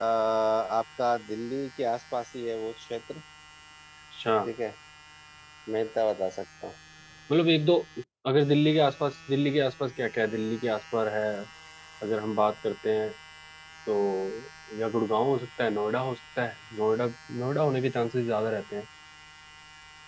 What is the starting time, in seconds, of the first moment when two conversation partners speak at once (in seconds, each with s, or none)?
none